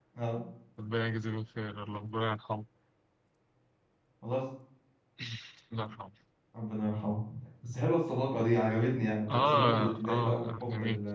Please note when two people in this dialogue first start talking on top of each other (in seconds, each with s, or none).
9.3 s